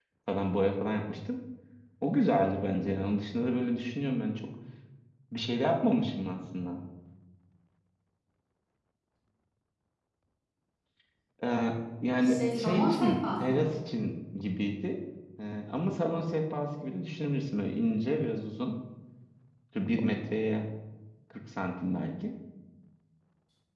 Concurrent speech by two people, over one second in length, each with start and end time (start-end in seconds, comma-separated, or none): 12.2-13.7